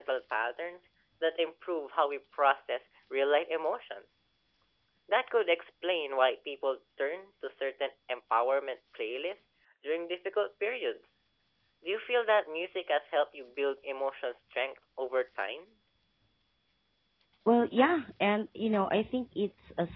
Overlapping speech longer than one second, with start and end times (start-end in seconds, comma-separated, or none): none